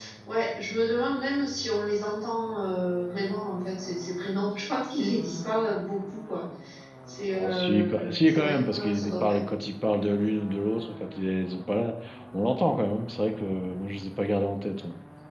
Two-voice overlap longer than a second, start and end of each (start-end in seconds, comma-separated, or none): 7.4-9.4